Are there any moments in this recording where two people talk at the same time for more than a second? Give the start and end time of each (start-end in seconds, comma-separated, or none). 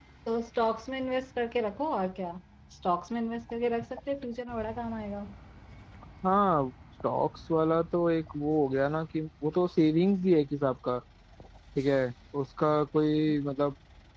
none